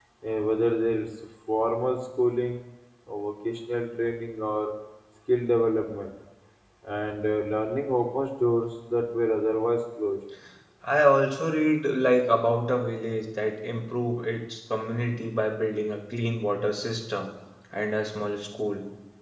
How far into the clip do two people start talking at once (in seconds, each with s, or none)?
none